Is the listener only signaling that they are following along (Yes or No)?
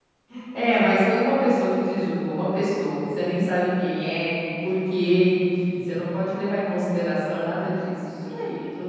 Yes